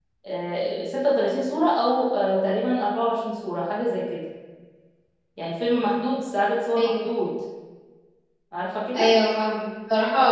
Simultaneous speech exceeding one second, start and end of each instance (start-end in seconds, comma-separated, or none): none